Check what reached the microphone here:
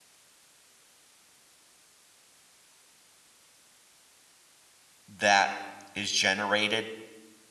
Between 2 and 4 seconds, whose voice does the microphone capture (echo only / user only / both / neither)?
neither